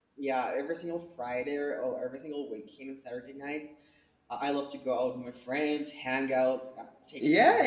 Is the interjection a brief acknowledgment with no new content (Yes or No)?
No